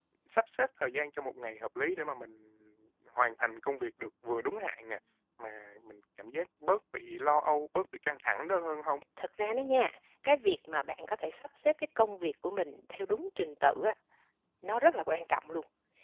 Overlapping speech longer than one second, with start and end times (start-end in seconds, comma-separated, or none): none